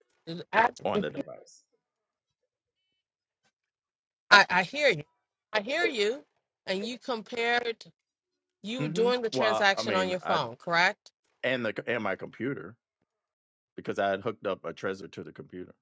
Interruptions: present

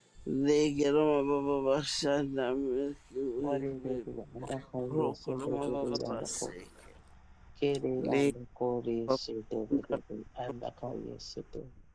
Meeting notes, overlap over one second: present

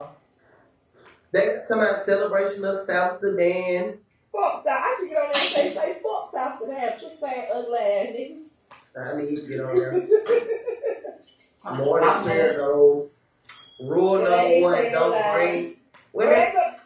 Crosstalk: present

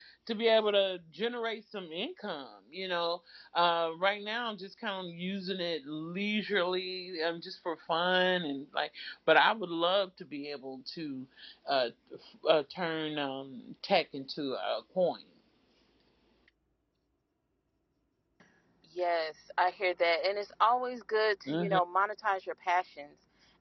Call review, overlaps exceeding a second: none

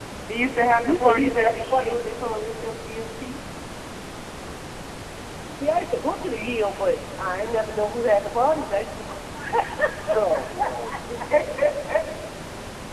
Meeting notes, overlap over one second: present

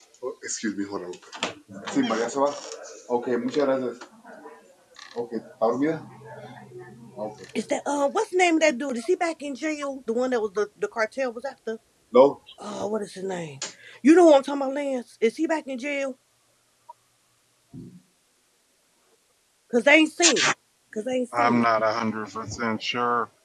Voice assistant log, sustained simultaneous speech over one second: none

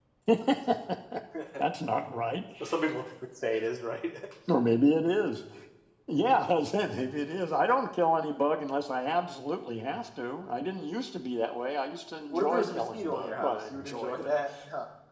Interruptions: present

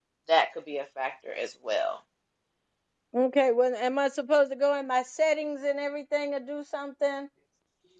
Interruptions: none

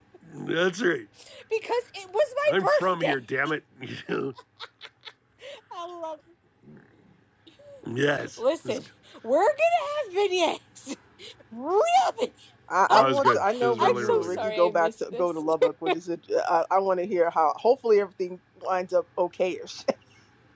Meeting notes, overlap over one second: present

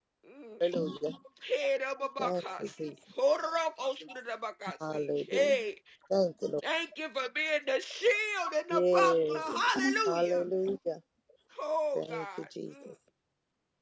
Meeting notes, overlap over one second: present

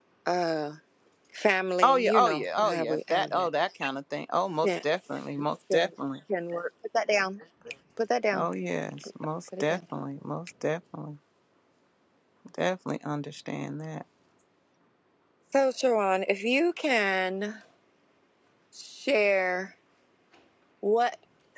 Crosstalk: present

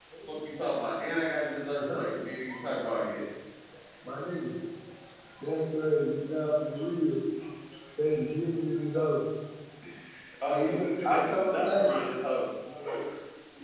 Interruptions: present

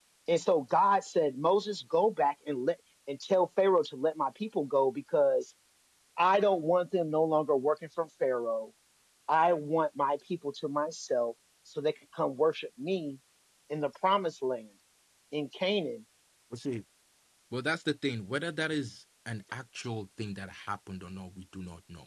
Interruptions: none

